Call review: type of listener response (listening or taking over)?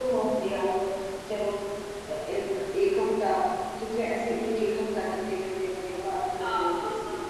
taking over